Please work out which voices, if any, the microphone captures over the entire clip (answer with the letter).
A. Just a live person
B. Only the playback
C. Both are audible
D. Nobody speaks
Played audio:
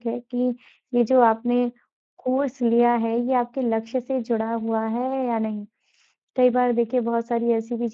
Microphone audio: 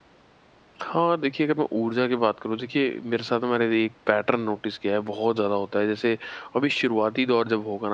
A